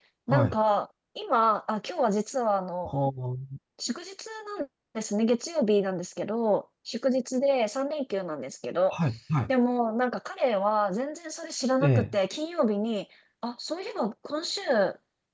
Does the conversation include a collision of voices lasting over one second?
No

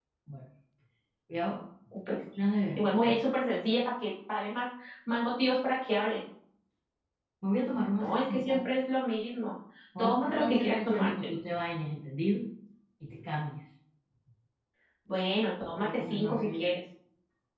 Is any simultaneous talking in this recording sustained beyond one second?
Yes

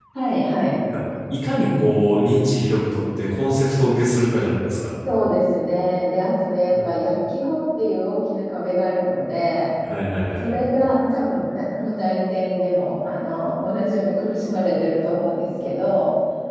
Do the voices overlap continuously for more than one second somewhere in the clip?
No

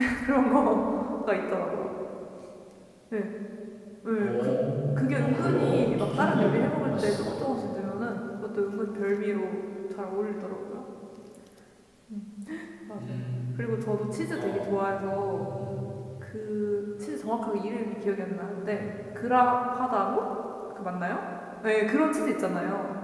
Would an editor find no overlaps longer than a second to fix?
No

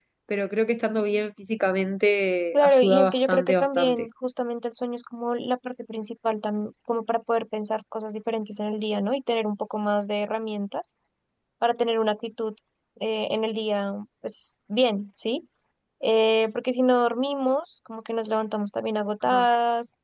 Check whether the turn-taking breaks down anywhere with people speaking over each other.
Yes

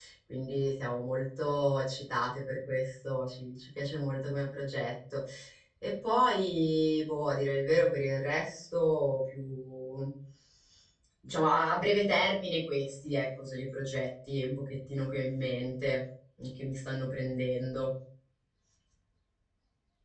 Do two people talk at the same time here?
No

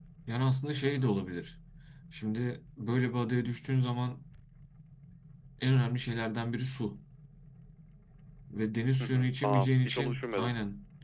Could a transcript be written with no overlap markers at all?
No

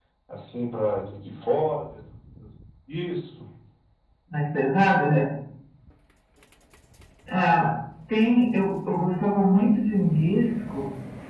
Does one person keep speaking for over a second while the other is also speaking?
No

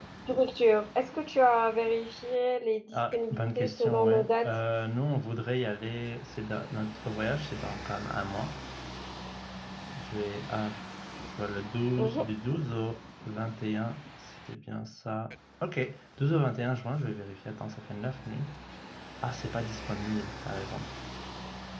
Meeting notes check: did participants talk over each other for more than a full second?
Yes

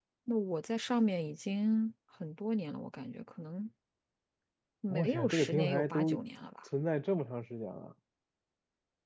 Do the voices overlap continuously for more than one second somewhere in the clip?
Yes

